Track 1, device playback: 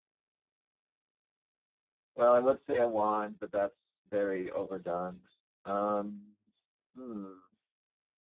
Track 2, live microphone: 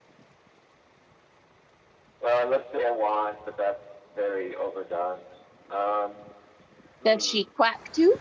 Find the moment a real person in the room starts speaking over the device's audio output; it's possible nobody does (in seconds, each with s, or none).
7.0 s